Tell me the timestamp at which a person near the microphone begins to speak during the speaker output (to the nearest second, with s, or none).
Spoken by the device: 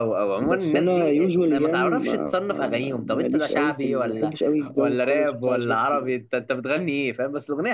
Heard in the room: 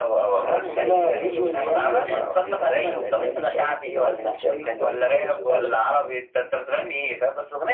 0 s